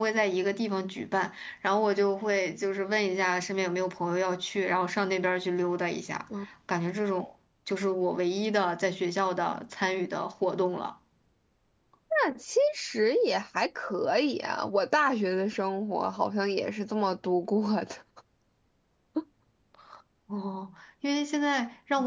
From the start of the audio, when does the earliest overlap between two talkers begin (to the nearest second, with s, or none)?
none